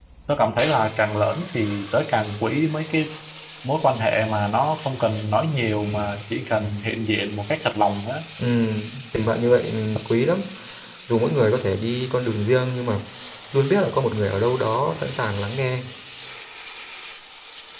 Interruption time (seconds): none

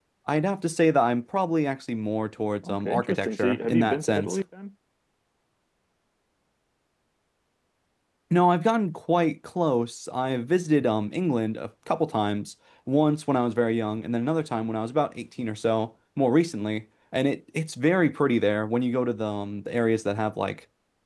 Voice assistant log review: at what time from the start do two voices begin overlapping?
2.6 s

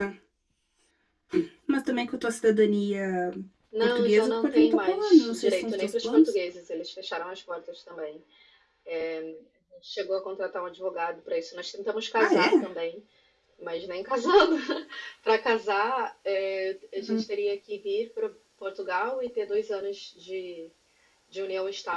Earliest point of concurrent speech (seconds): 3.8 s

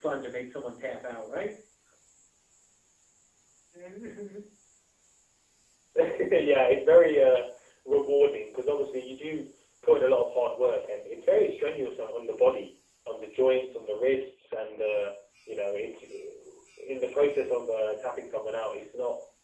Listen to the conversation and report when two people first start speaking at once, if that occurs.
none

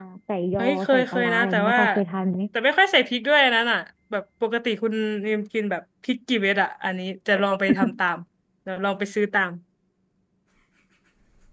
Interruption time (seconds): 0.6 s

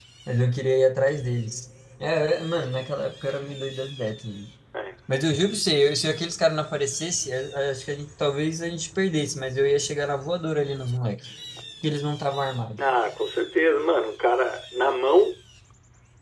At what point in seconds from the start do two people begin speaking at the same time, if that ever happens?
none

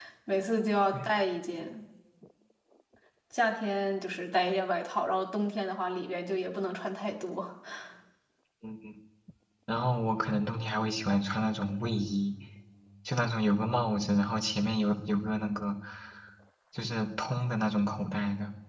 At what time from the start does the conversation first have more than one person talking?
none

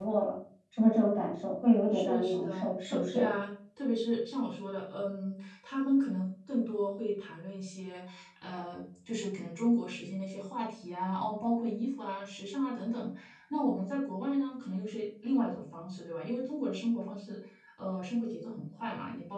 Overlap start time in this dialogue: 1.9 s

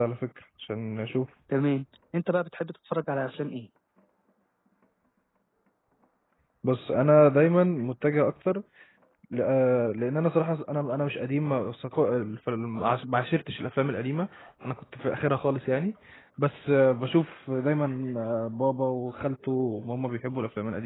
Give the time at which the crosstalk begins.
none

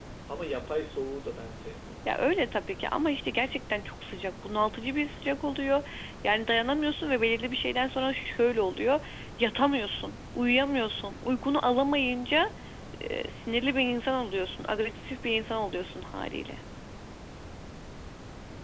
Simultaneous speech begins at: none

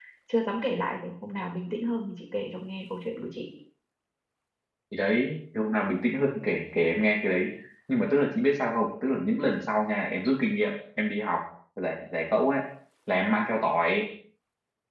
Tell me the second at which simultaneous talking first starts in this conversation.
none

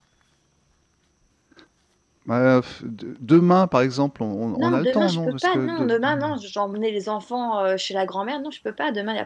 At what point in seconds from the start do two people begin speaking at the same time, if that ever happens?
4.6 s

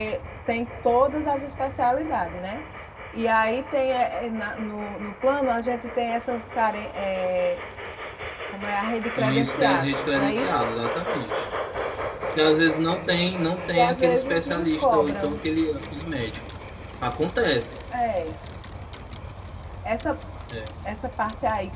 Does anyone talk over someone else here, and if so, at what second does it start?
9.2 s

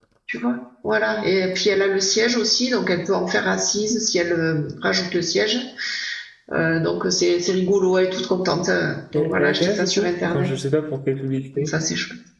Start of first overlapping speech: 9.1 s

